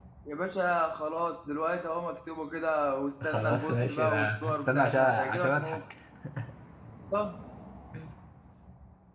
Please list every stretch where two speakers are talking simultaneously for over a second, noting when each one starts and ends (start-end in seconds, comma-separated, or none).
3.2-5.8